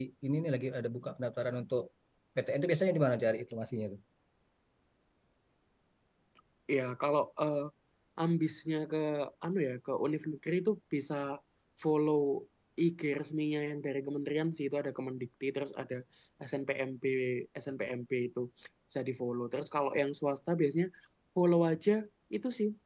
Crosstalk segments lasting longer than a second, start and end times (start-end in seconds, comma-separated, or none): none